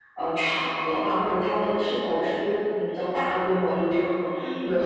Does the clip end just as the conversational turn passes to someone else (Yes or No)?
No